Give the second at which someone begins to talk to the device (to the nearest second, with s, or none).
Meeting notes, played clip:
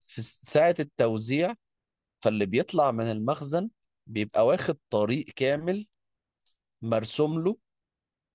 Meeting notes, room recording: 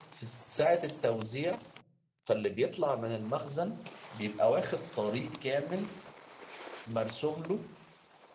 none